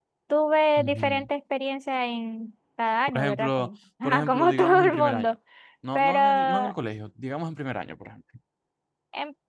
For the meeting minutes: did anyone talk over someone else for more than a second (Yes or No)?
Yes